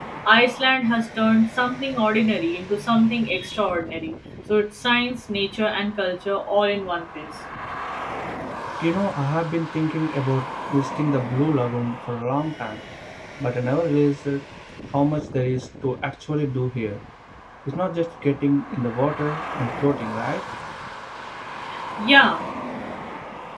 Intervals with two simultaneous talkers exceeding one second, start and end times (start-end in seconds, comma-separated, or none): none